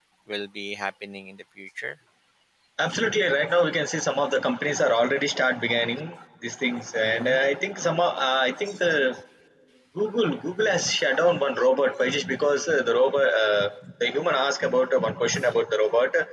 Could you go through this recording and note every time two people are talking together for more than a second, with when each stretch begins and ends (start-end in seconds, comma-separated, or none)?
none